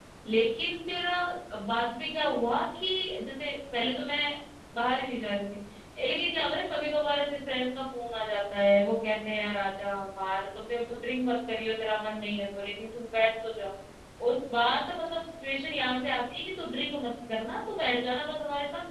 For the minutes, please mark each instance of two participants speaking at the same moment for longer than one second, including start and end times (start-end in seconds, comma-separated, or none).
none